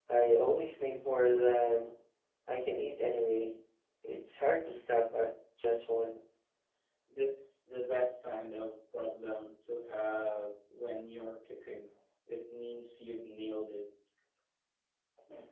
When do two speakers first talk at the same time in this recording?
none

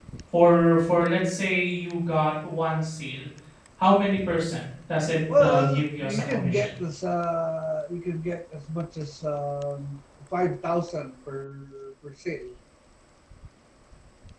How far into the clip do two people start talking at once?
5.3 s

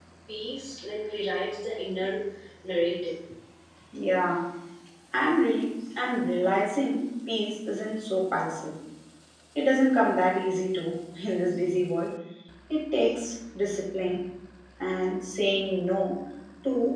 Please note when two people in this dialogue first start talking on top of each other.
none

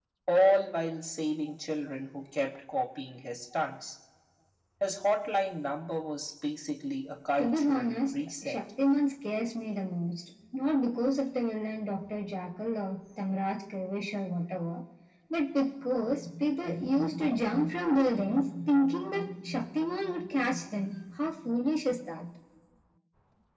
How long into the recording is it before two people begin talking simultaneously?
7.4 s

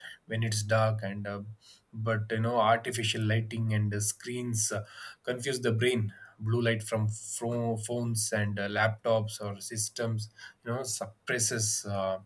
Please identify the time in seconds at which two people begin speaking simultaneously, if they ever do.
none

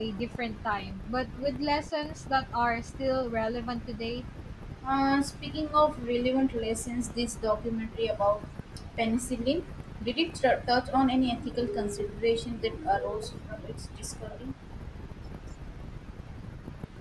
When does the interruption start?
none

